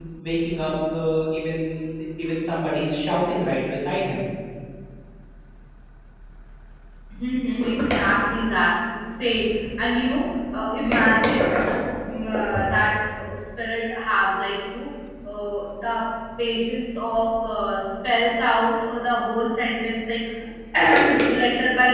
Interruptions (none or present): none